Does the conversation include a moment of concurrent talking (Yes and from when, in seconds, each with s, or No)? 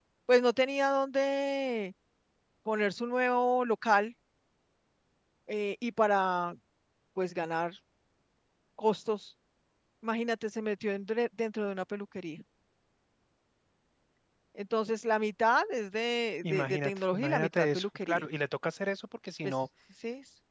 Yes, from 16.4 s